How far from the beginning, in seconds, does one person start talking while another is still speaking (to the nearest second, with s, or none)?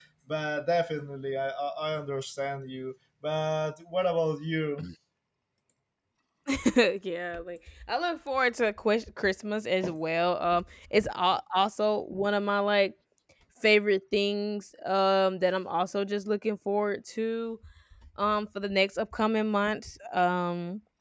none